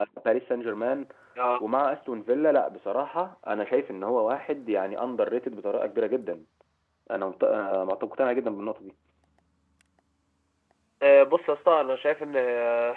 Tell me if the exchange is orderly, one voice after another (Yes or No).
Yes